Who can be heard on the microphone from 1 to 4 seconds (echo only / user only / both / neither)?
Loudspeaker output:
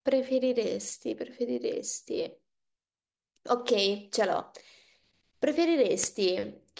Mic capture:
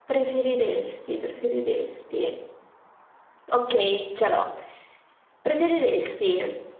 echo only